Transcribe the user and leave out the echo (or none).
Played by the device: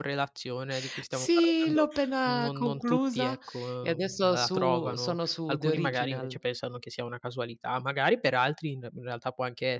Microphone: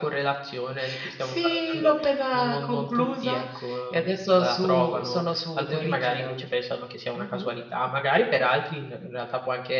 Mh-mh.